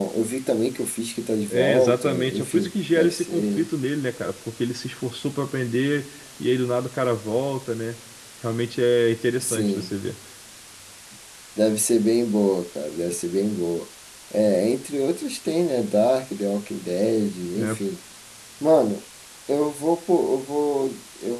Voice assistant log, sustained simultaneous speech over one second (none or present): present